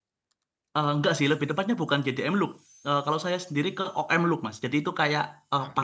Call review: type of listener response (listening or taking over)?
listening